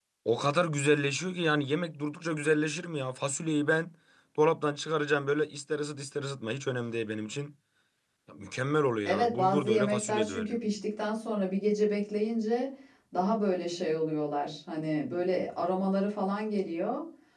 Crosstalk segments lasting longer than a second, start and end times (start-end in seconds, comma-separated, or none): 9.1-10.5